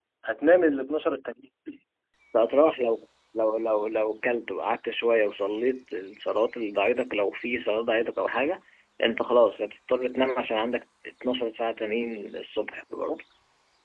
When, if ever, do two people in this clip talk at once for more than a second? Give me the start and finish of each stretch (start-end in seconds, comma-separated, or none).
none